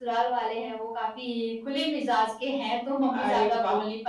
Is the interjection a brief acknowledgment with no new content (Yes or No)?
Yes